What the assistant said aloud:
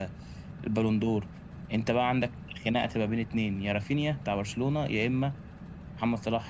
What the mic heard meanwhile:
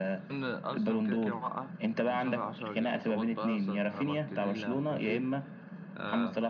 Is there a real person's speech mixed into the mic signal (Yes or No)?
Yes